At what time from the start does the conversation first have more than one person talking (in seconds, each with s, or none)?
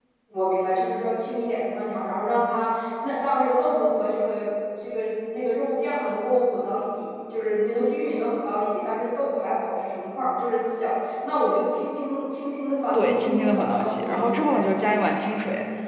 12.9 s